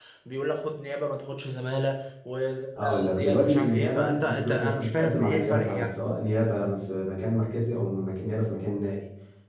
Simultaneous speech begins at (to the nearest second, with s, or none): 3 s